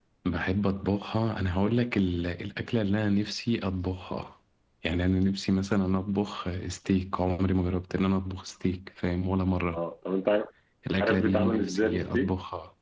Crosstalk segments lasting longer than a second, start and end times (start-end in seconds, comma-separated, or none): 11.0-12.3